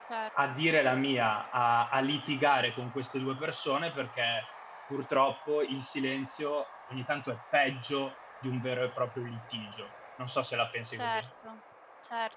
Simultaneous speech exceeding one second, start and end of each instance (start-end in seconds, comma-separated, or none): none